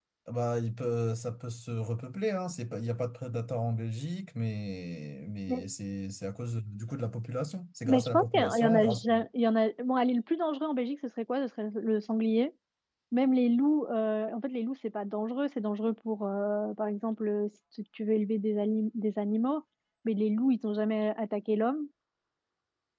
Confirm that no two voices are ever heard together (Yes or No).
No